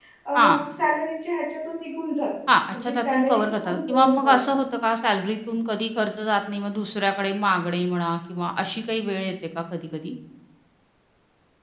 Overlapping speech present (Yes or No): Yes